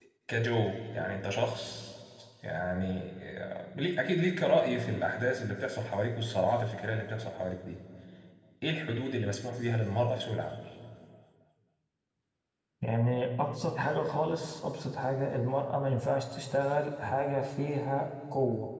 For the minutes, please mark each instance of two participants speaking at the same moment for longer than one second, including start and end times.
none

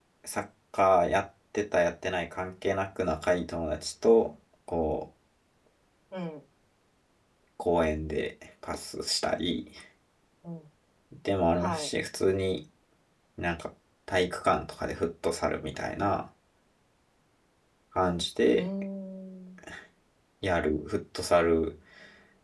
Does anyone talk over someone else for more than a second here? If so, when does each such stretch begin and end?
none

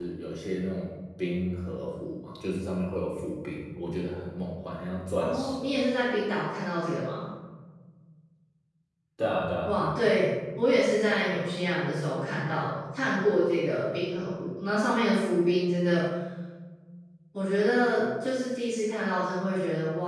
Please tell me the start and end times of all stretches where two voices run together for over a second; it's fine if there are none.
none

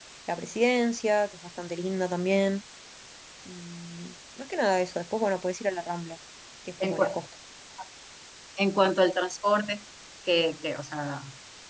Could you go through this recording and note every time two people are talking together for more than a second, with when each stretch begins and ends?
none

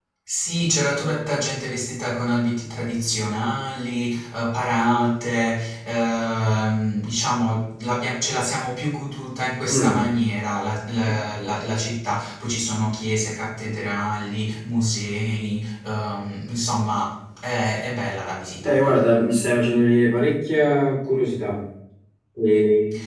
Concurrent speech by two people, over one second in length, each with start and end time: none

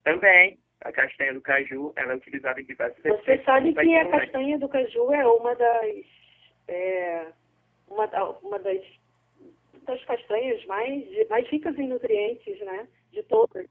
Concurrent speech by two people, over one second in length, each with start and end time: 3.0-4.3

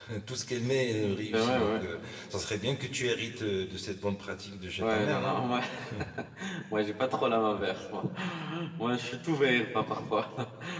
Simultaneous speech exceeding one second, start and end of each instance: none

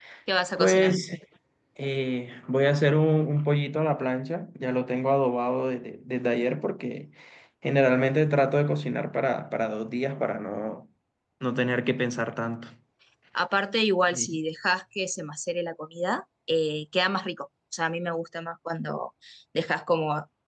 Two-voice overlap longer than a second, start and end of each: none

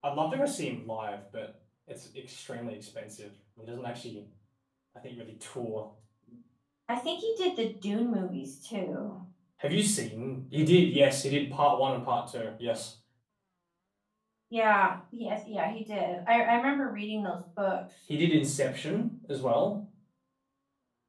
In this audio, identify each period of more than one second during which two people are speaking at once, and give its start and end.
none

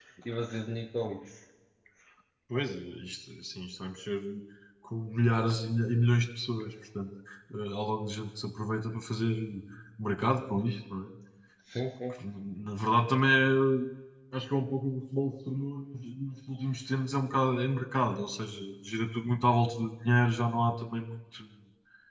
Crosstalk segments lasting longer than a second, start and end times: none

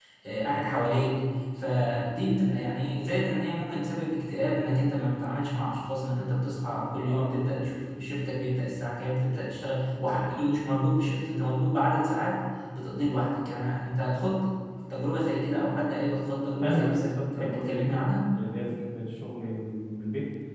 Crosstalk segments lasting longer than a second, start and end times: 16.6-17.9

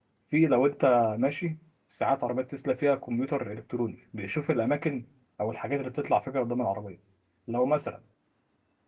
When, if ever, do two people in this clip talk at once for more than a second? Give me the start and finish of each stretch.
none

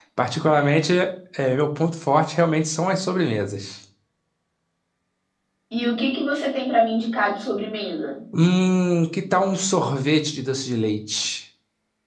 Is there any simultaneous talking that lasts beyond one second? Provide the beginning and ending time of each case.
none

